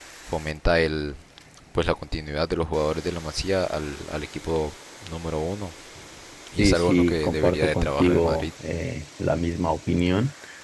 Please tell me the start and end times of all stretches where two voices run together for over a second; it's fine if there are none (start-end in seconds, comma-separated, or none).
6.6-8.5